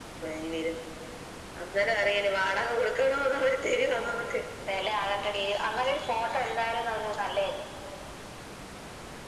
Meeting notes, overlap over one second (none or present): none